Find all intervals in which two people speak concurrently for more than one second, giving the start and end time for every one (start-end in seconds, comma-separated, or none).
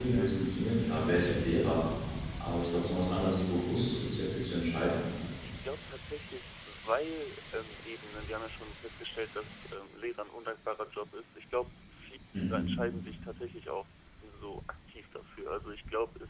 none